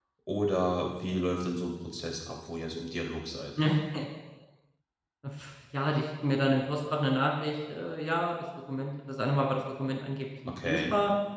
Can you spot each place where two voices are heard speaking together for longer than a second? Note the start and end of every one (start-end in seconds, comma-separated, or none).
none